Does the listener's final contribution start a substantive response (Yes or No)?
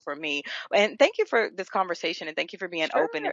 Yes